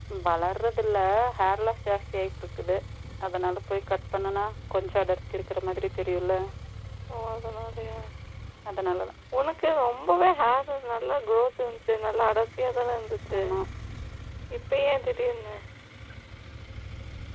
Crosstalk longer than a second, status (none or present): none